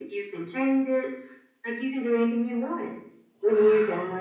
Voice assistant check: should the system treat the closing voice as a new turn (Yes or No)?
No